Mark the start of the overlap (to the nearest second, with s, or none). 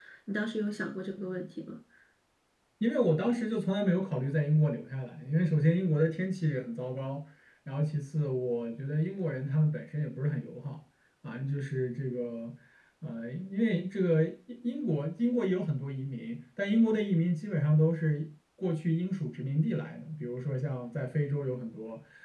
none